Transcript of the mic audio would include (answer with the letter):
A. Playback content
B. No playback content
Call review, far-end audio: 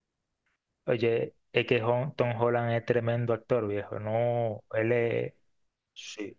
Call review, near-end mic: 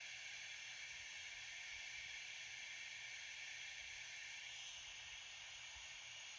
B